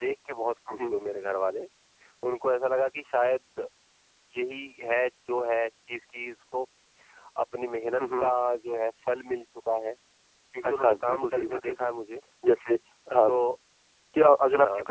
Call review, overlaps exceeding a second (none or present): present